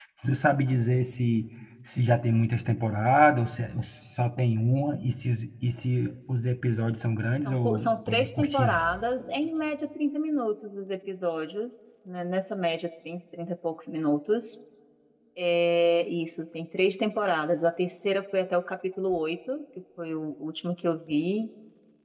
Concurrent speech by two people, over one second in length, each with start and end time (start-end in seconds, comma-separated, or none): 7.5-8.9